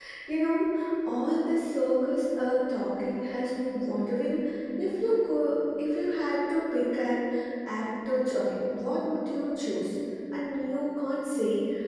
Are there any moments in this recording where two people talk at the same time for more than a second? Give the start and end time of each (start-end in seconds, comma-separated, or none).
none